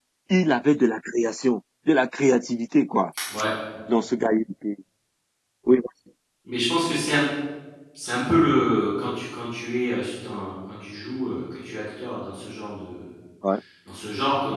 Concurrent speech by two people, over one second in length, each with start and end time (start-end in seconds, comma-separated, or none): none